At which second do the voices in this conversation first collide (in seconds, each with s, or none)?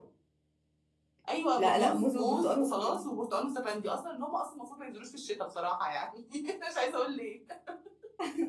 1.6 s